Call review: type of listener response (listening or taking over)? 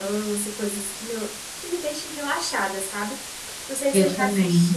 listening